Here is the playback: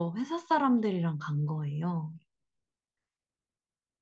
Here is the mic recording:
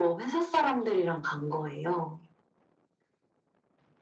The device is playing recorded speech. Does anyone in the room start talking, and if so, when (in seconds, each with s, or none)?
none